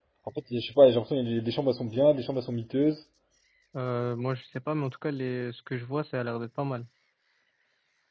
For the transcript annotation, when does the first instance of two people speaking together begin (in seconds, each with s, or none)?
none